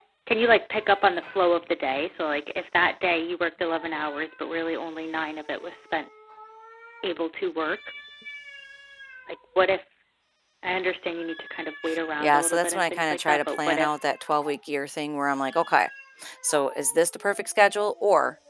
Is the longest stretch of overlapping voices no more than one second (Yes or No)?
No